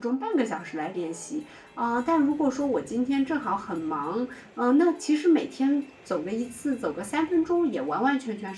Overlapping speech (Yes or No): No